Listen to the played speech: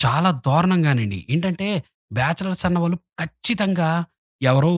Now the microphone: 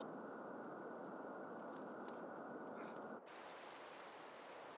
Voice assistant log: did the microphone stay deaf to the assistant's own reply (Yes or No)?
Yes